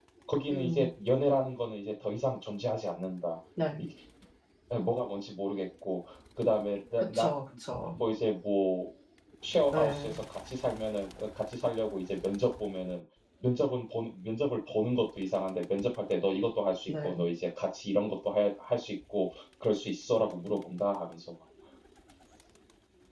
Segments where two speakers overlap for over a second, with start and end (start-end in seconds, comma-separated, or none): none